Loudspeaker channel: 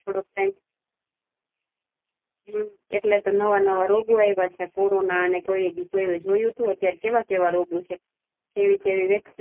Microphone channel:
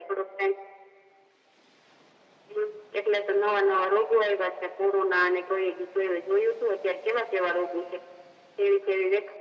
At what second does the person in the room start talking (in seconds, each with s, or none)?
none